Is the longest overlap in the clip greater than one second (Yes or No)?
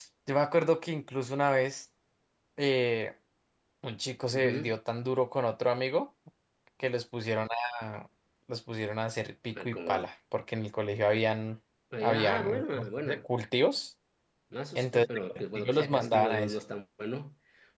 Yes